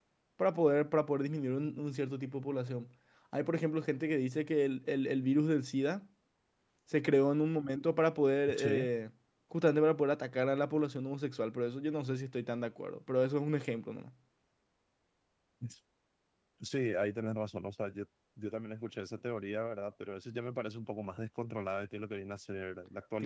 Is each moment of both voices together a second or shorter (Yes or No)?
Yes